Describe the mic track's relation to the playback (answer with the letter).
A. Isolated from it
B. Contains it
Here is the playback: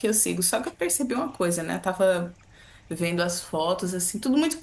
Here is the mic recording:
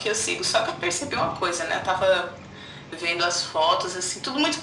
B